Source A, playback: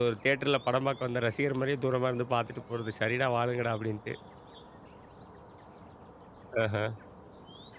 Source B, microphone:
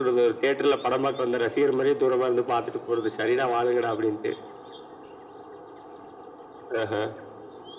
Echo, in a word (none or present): present